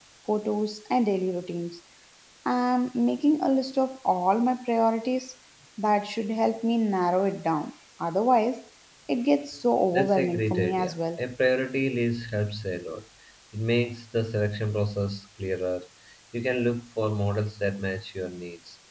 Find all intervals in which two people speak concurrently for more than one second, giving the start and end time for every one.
9.9-11.2

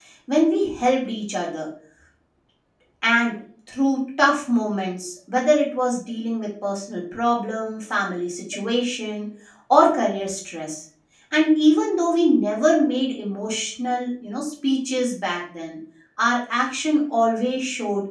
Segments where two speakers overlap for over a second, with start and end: none

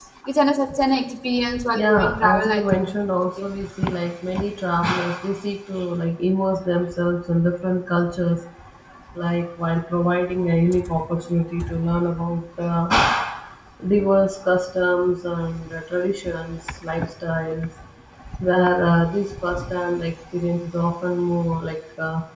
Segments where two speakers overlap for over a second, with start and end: 1.8-3.5

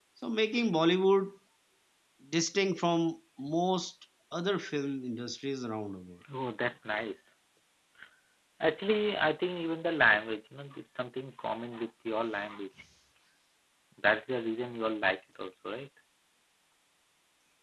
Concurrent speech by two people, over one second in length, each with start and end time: none

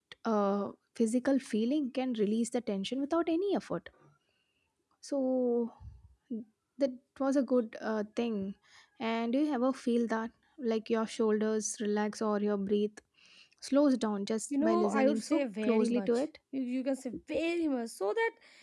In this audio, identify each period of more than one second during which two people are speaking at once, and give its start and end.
14.6-16.1

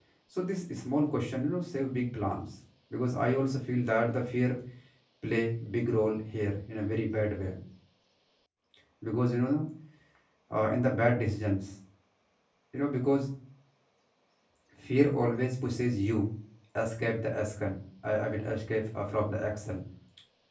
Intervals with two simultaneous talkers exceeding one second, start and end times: none

